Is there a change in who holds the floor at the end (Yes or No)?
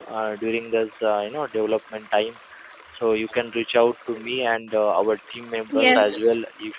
No